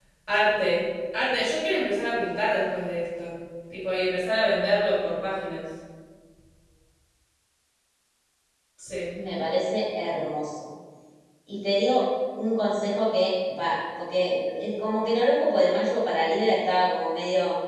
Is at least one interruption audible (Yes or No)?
No